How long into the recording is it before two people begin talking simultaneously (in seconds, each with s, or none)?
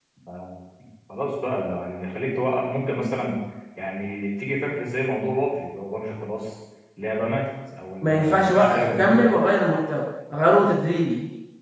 8.0 s